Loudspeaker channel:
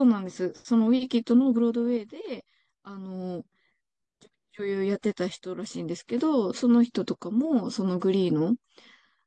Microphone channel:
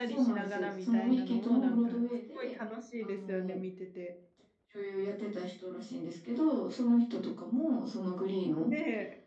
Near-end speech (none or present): present